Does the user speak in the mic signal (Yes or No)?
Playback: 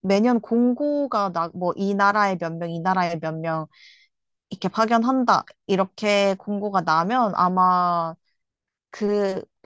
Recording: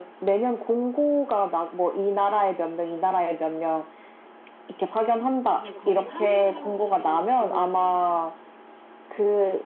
Yes